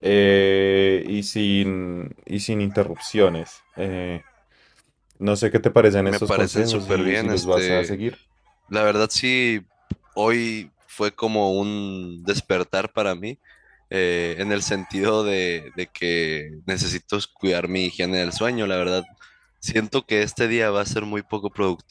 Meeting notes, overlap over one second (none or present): present